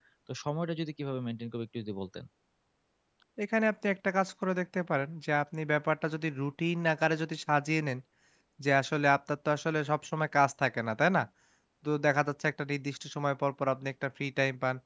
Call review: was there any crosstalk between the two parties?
No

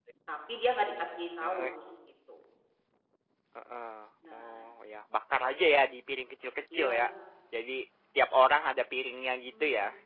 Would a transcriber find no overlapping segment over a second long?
Yes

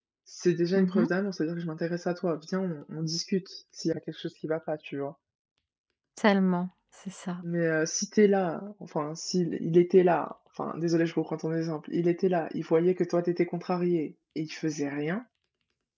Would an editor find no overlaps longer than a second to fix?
Yes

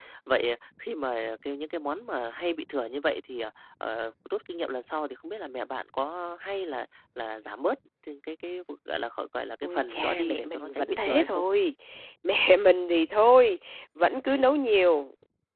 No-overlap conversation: No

